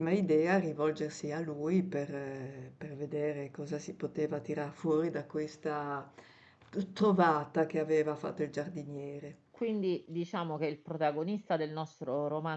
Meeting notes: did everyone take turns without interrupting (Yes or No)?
Yes